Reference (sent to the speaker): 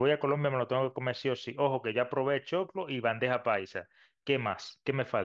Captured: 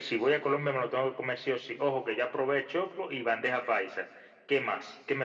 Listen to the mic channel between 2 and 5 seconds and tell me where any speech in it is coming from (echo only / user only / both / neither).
echo only